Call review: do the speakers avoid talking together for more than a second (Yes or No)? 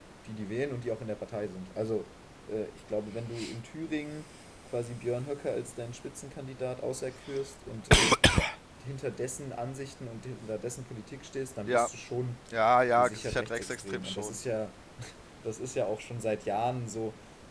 No